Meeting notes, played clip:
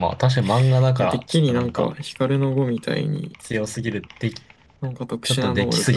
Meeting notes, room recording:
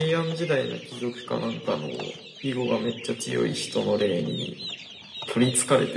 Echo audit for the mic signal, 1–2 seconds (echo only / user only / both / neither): user only